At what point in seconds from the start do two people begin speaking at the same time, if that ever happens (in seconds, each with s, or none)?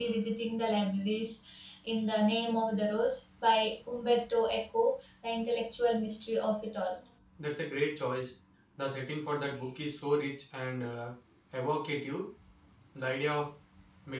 none